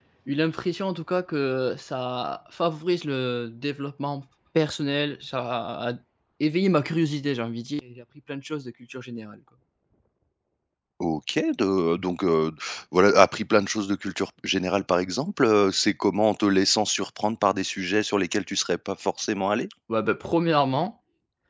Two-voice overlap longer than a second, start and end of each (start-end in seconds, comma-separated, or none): none